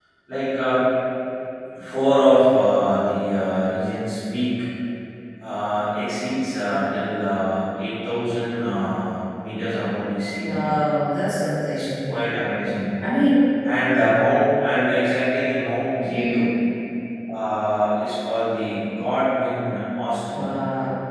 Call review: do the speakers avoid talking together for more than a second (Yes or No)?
Yes